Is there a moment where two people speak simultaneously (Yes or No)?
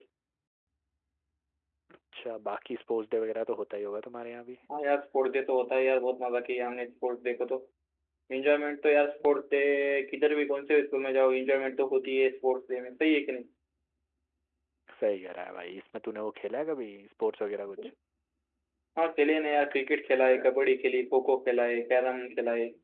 No